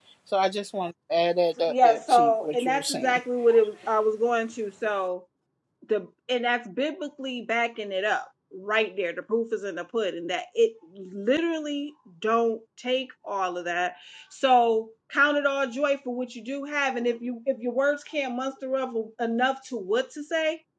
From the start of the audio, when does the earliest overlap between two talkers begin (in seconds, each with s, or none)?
1.6 s